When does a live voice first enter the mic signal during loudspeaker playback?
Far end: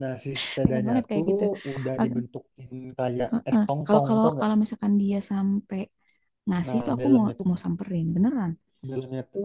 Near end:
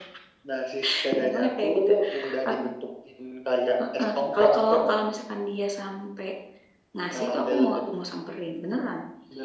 none

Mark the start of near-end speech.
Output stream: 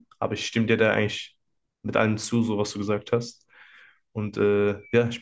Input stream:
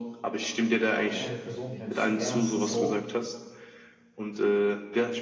1.1 s

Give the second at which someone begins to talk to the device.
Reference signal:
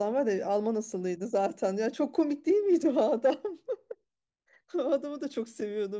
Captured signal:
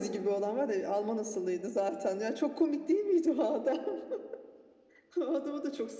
none

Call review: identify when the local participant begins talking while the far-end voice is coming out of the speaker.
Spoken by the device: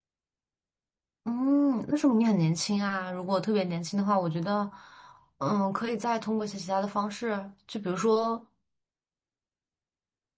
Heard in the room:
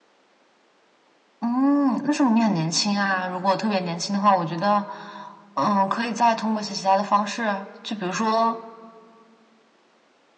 none

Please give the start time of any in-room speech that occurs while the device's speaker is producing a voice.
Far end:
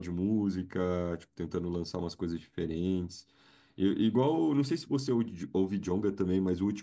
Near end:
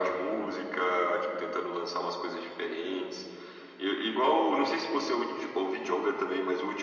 none

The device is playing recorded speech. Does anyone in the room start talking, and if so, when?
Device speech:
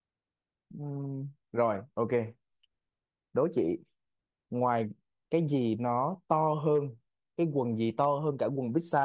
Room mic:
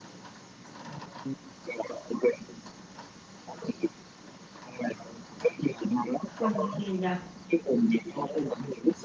6.4 s

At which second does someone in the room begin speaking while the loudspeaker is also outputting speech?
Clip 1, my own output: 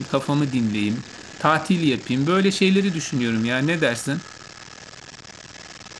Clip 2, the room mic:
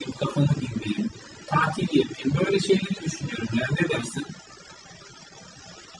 none

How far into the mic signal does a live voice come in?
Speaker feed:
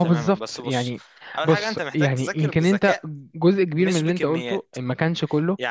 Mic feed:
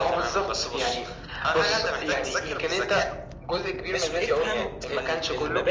4.2 s

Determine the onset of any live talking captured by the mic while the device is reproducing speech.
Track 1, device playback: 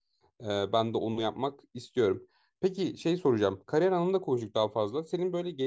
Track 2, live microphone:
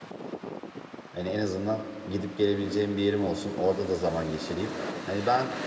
1.1 s

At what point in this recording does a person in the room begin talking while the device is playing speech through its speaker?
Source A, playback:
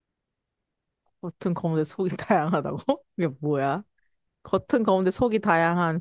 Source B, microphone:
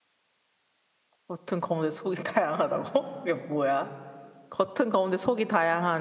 none

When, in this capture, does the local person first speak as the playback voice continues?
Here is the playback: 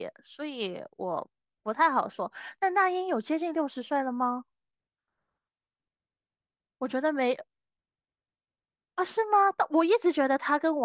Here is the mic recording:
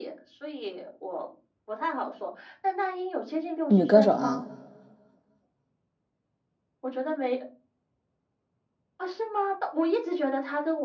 3.7 s

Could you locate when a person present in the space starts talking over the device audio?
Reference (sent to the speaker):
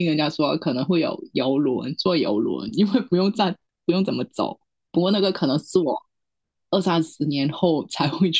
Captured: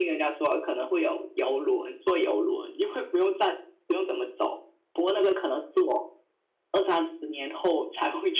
none

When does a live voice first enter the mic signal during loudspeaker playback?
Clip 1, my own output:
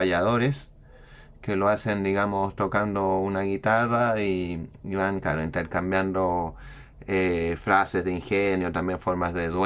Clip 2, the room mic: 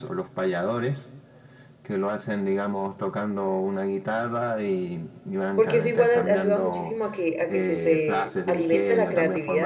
5.5 s

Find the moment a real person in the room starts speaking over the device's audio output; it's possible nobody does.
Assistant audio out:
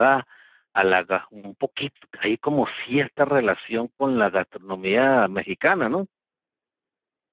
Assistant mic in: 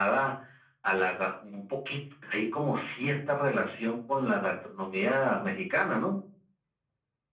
none

